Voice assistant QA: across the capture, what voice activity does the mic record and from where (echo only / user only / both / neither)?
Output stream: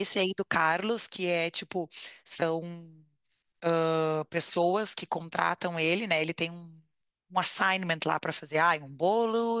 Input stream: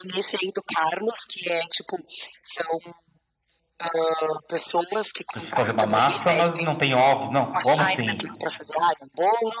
both